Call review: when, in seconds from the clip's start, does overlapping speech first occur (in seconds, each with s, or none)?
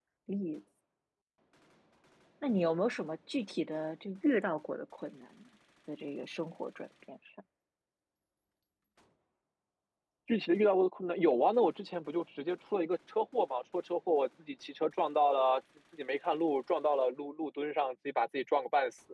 none